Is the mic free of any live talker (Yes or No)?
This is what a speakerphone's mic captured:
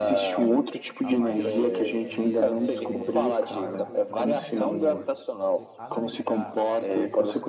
No